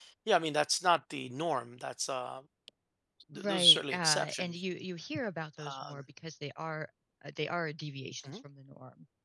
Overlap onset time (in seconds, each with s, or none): 3.3 s